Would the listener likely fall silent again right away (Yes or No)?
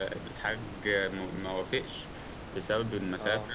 Yes